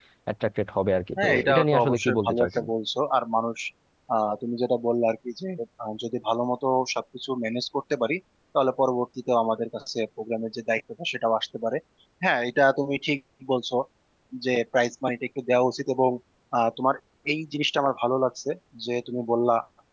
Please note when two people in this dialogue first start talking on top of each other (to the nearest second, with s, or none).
1 s